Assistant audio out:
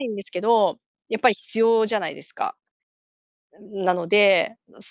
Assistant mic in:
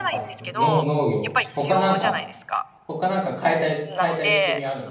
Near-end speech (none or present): present